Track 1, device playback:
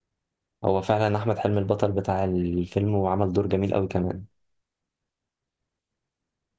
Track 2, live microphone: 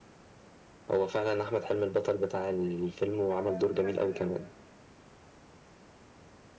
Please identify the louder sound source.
echo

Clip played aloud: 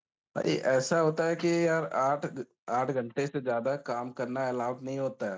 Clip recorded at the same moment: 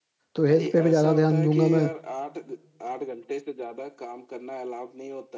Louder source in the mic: user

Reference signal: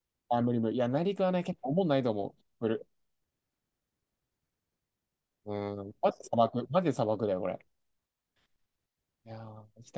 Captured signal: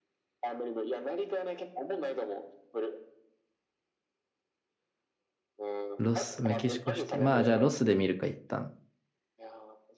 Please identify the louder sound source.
user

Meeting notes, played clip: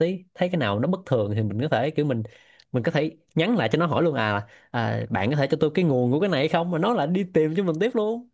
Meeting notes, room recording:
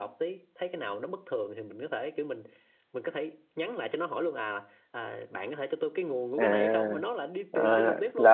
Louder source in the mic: user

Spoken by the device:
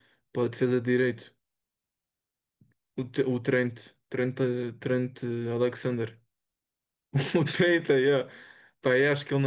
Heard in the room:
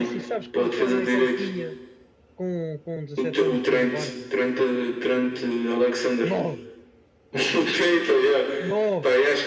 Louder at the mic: echo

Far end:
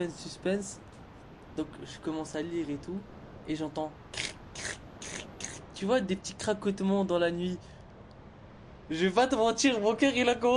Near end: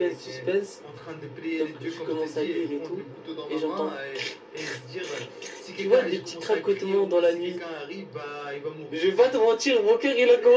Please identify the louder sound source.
echo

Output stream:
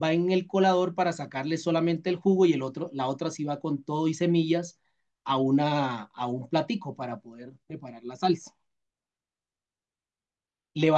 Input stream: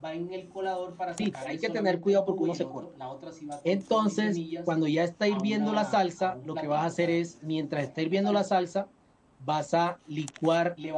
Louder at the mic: user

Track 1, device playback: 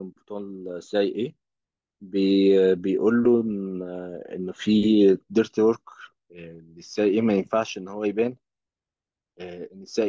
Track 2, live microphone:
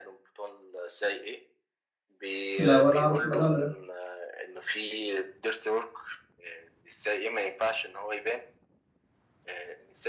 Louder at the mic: user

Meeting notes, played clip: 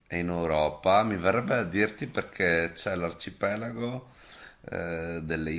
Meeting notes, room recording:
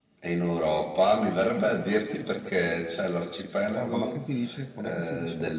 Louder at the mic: echo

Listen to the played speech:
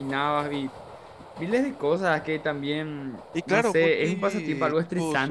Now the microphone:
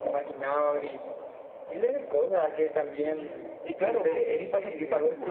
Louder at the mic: echo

